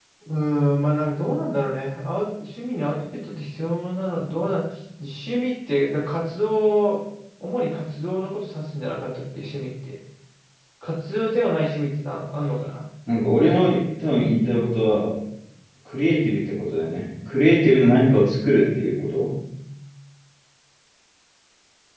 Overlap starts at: none

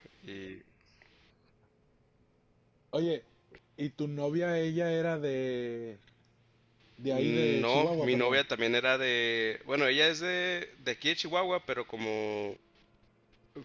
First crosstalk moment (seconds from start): 7.1 s

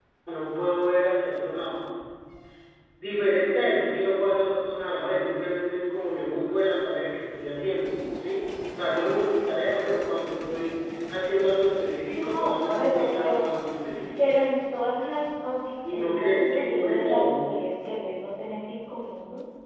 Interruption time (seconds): 12.2 s

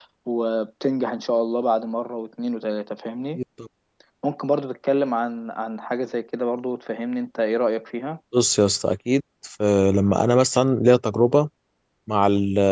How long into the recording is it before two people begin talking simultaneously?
none

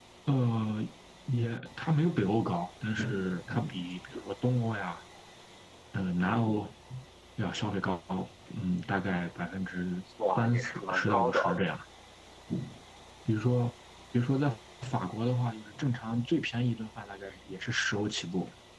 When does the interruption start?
10.2 s

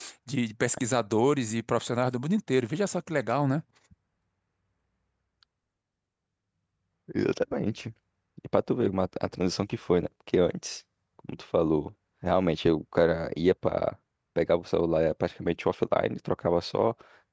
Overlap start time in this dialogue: none

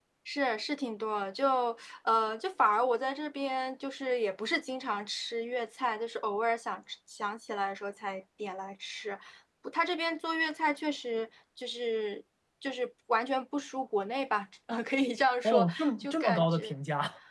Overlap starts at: 15.4 s

